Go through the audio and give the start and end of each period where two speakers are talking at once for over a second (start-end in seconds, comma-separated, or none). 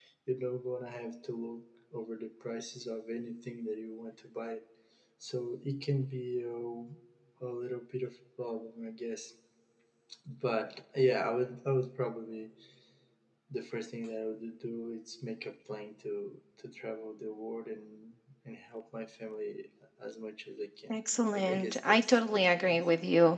21.3-22.8